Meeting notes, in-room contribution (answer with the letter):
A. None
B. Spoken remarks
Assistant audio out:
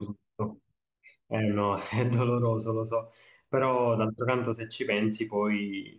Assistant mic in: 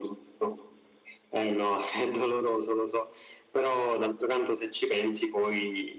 A